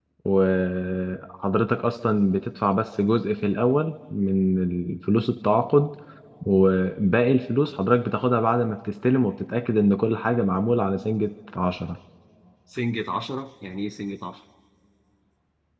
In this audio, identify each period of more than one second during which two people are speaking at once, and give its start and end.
none

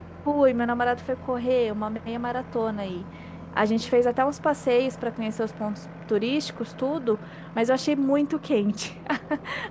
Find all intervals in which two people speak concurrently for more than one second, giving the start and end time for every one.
none

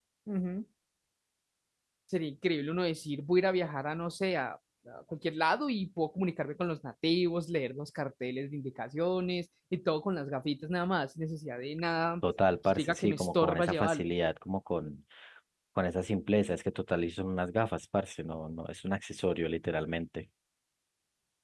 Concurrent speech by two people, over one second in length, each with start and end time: 12.7-14.1

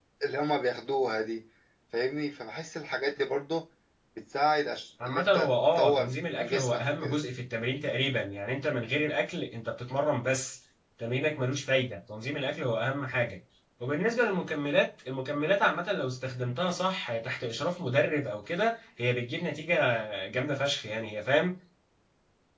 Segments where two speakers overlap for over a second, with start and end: 5.0-7.2

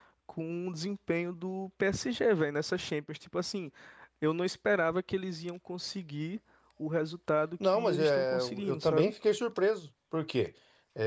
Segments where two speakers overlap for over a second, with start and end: 7.6-9.1

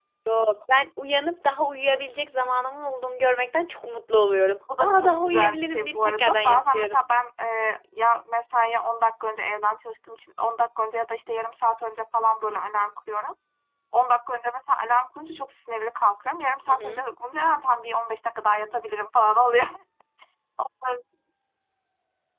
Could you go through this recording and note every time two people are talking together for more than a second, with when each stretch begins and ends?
4.8-7.0

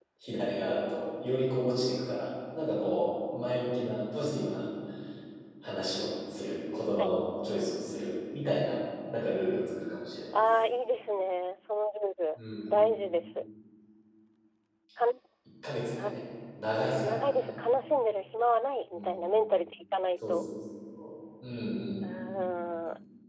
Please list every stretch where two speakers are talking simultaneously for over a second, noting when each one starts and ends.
none

